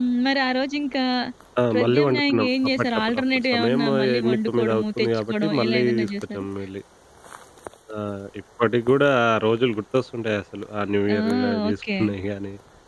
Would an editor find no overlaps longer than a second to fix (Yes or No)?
No